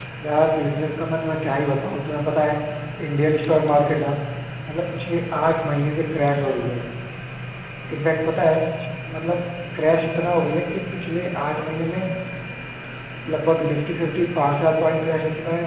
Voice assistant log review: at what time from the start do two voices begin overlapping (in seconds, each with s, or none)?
none